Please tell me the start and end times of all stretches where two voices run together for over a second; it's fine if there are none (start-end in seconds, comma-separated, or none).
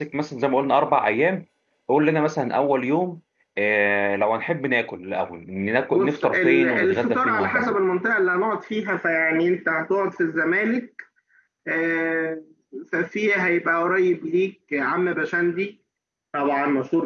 5.9-7.7